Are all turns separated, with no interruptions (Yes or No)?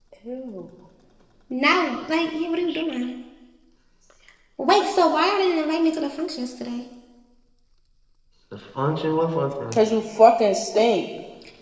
Yes